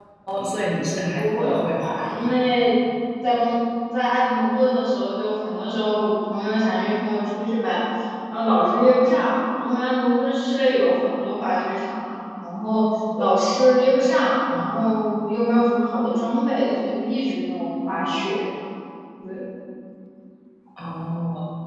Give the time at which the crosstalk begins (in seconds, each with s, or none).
1.1 s